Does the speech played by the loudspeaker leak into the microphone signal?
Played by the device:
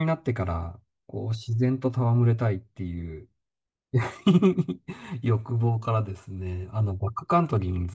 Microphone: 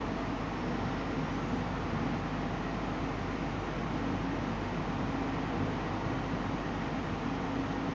No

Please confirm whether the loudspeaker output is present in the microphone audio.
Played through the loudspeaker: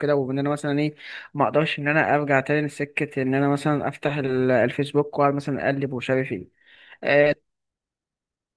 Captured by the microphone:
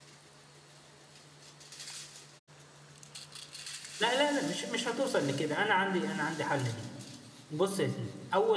No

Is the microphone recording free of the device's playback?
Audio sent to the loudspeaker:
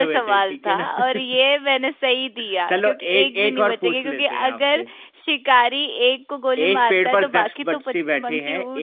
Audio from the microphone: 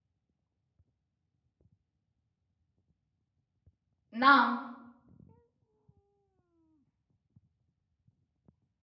Yes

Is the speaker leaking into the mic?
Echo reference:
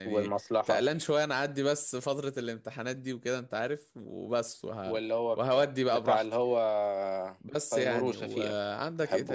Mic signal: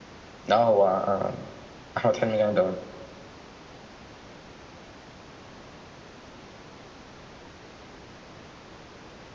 No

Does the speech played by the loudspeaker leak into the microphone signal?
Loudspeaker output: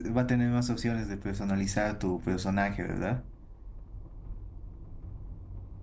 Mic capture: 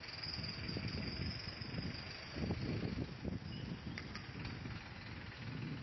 No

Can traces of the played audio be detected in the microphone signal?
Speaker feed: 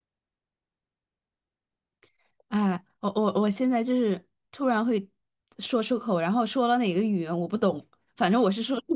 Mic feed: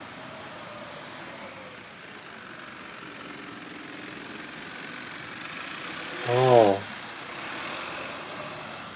No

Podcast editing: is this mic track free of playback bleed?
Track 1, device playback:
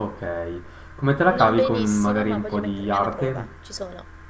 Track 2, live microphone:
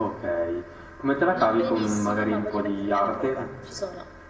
No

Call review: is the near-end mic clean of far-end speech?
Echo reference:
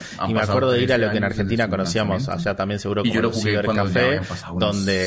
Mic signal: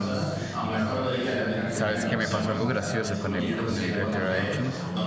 No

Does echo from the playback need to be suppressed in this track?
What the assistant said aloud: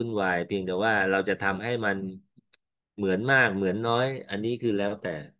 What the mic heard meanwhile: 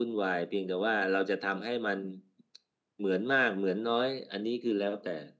Yes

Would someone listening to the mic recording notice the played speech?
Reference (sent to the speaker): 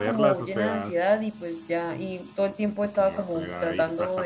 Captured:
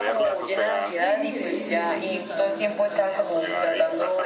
Yes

